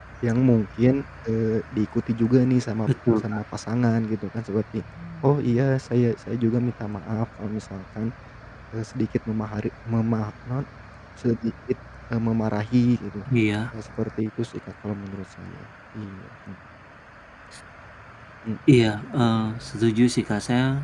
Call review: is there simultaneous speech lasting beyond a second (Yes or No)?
No